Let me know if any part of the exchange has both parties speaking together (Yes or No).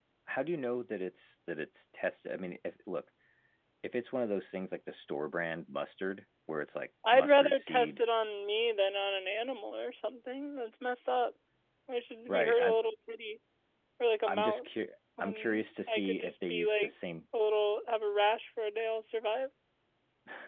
Yes